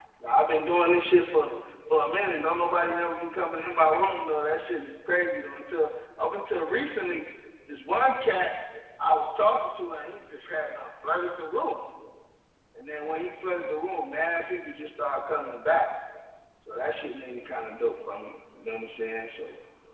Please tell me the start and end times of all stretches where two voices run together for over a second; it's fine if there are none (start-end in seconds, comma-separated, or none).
none